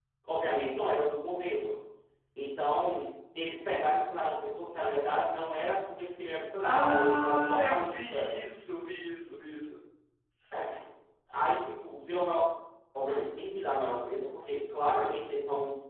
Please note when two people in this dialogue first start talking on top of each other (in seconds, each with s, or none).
6.6 s